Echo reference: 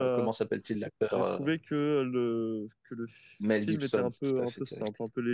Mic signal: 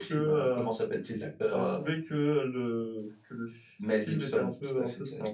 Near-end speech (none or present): none